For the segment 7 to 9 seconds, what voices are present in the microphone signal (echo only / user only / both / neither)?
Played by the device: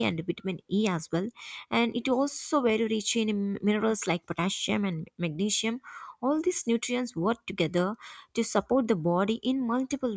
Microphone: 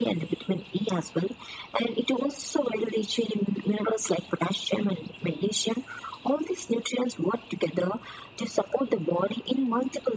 echo only